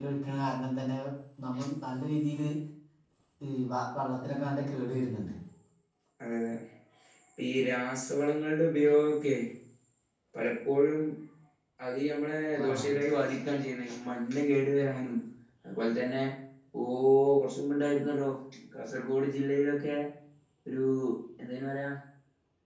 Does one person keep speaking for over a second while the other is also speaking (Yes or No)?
No